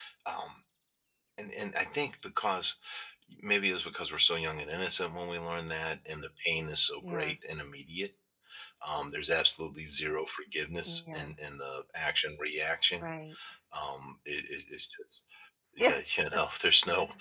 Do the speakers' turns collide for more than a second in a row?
No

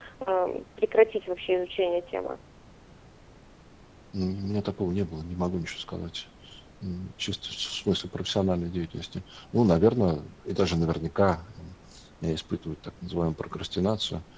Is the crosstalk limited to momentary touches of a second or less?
Yes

